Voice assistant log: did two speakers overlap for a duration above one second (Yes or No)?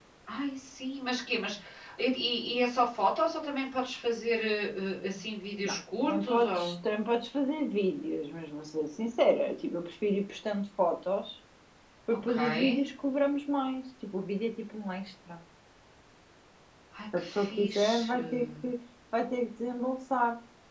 Yes